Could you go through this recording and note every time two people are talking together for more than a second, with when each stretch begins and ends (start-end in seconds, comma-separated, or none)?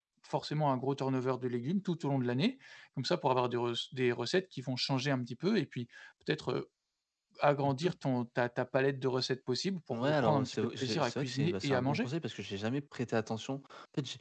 9.9-12.1